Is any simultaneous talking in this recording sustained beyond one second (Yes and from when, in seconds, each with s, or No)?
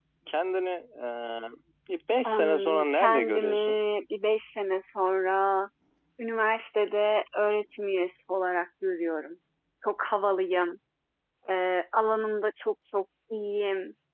Yes, from 2.3 s